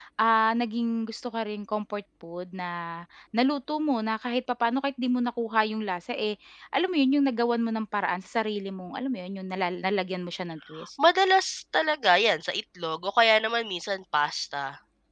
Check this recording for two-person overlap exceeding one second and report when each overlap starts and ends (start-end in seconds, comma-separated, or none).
none